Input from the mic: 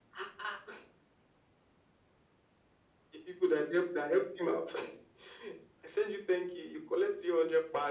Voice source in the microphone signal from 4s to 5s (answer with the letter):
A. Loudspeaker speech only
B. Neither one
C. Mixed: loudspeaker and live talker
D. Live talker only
A